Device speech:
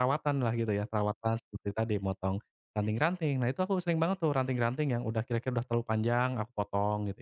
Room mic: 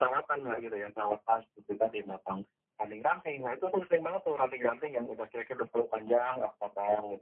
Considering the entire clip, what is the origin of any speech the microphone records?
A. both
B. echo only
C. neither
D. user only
B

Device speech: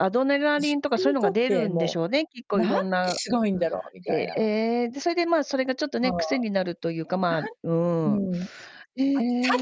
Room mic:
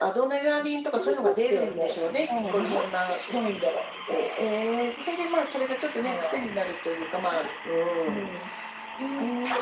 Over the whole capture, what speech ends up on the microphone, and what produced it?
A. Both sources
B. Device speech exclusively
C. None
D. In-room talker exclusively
A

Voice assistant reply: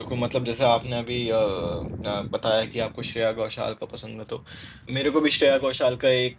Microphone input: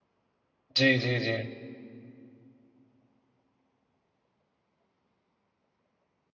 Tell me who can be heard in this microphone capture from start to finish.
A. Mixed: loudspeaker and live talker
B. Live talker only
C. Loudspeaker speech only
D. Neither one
B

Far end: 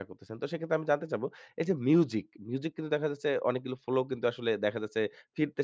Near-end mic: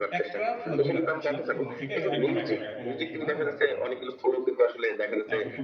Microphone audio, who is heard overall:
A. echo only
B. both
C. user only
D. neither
B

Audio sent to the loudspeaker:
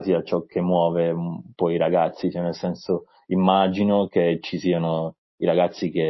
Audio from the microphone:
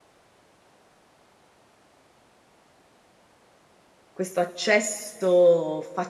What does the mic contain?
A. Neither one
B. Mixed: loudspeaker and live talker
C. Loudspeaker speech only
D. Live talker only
D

